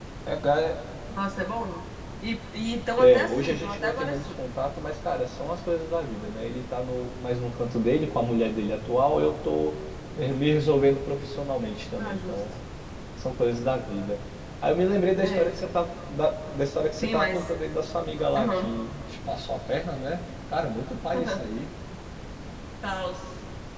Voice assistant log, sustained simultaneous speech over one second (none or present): present